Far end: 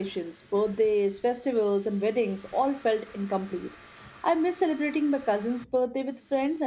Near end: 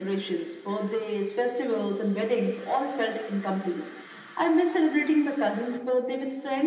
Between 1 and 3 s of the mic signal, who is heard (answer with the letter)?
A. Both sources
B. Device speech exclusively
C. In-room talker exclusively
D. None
B